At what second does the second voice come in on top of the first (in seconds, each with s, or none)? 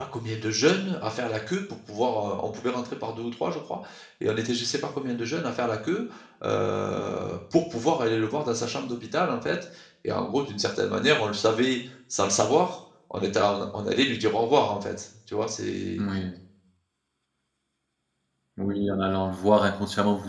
none